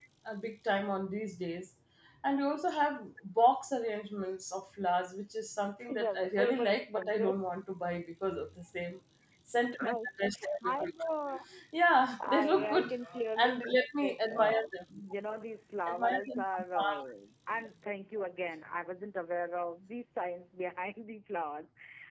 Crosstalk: present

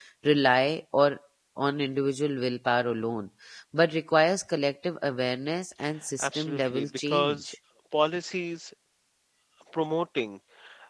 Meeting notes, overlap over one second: present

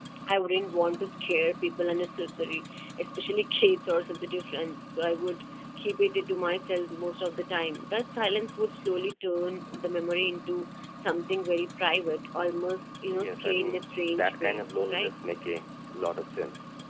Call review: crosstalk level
present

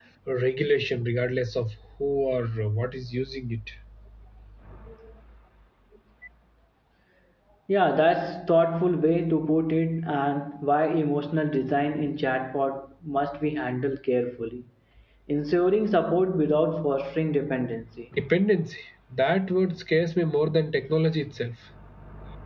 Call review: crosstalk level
none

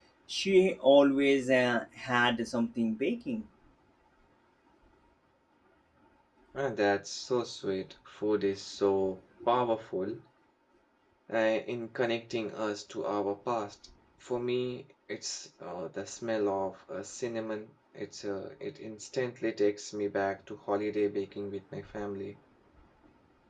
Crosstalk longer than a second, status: none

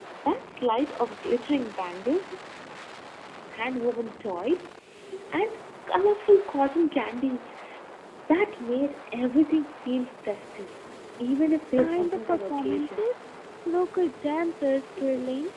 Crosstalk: present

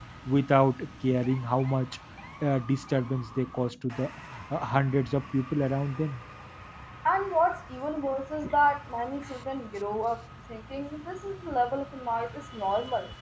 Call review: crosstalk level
none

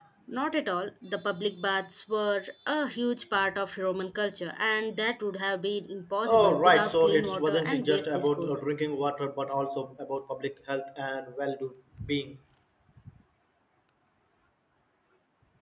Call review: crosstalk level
present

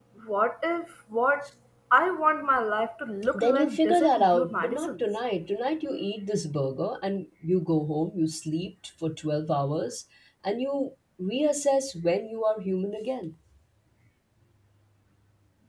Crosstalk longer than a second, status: present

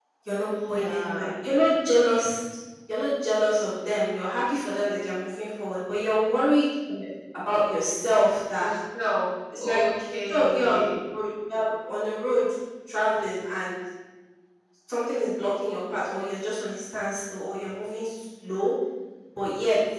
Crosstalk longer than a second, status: present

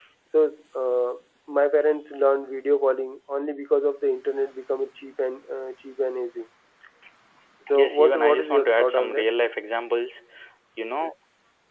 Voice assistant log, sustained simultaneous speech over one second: present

